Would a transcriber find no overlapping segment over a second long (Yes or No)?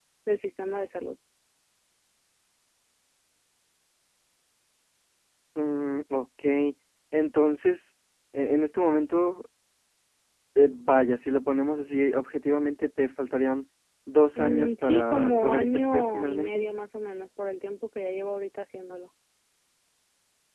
No